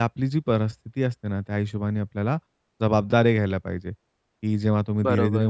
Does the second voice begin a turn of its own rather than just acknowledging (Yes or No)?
No